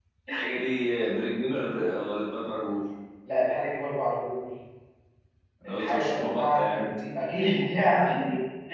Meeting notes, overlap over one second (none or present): present